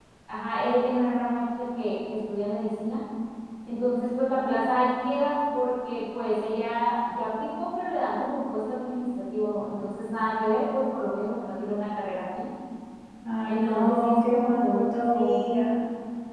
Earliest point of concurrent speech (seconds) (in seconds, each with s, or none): 13.5 s